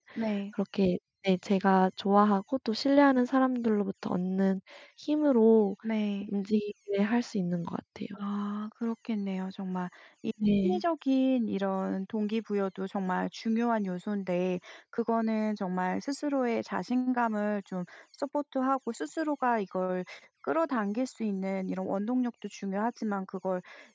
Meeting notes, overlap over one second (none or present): none